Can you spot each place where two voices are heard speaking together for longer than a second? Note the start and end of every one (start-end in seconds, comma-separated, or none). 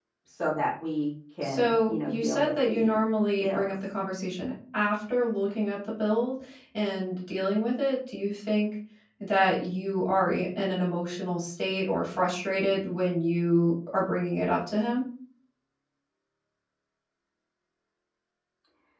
1.4-3.0